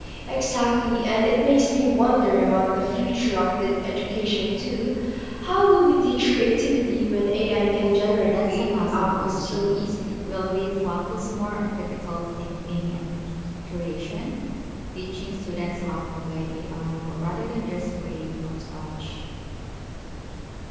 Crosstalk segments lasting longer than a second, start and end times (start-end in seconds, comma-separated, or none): 8.2-9.8